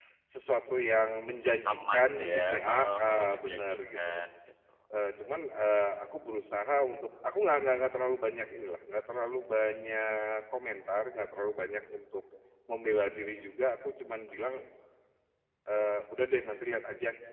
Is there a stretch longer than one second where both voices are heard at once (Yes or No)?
Yes